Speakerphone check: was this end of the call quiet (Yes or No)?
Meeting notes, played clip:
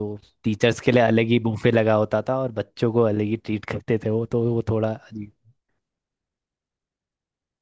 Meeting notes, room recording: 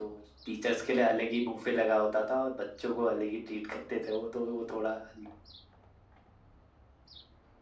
Yes